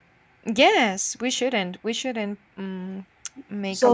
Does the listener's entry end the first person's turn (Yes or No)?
Yes